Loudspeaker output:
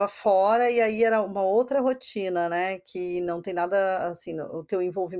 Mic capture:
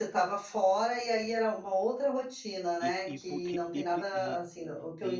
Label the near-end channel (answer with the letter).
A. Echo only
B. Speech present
B